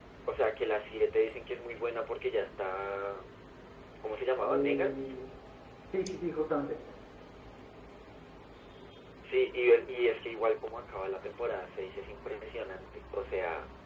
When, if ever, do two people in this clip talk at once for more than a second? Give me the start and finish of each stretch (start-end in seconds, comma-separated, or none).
none